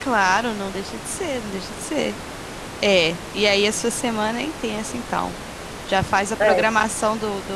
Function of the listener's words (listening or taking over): listening